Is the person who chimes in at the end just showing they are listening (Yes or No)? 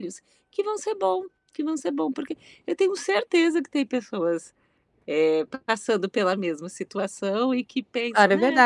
No